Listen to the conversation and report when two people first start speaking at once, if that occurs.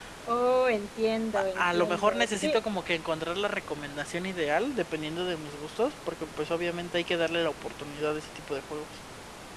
1 s

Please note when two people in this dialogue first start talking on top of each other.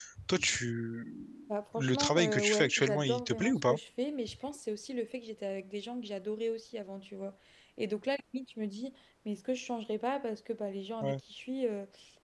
2 s

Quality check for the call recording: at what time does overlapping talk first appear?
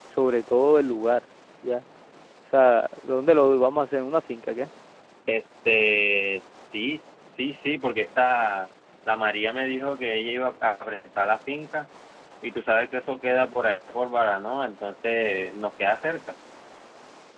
none

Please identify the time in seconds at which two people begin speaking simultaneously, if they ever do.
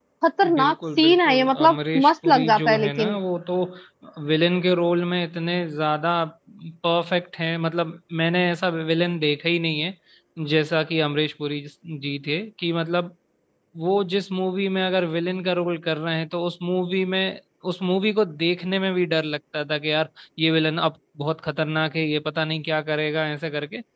1 s

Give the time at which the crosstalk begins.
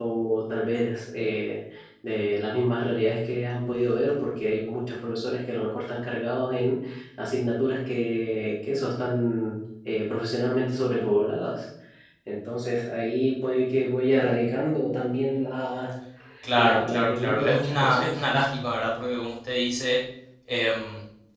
17 s

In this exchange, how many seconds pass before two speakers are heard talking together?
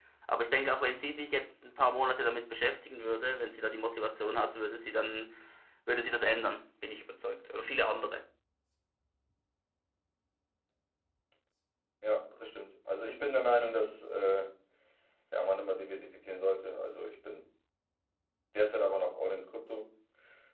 none

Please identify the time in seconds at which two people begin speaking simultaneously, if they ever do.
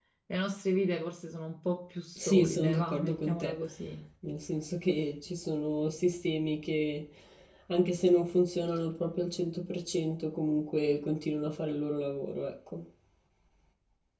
2 s

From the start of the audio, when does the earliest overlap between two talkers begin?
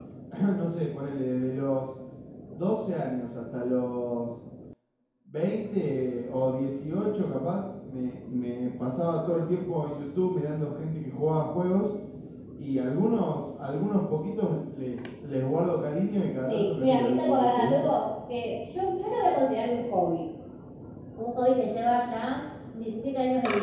16 s

